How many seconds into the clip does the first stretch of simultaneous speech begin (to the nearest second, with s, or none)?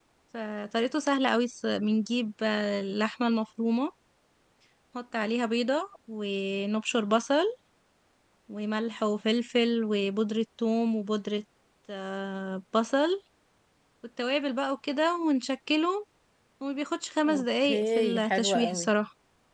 17 s